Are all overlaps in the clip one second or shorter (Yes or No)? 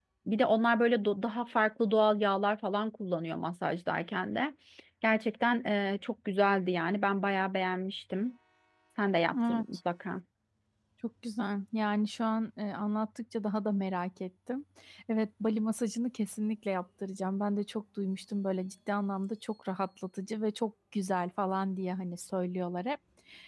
Yes